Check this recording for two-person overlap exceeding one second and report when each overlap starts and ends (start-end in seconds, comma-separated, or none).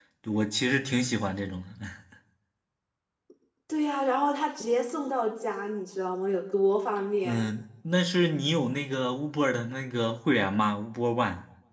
none